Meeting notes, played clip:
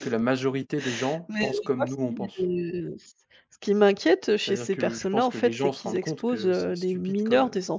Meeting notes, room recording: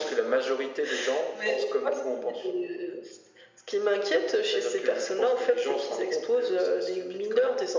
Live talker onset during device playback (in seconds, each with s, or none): none